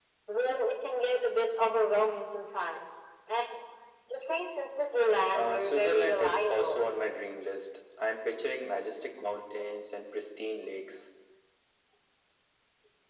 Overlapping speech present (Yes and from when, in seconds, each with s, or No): Yes, from 5.3 s